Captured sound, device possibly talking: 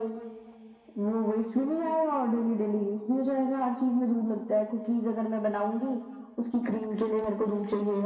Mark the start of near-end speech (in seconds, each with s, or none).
none